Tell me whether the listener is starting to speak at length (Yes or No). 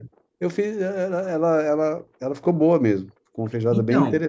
Yes